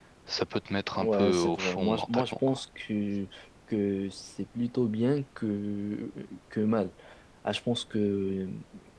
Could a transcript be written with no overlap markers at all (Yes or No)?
No